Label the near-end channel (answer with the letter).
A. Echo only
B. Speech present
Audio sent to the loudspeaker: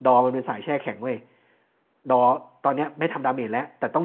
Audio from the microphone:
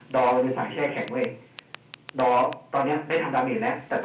A